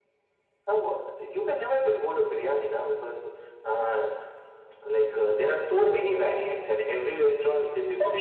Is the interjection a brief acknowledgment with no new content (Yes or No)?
No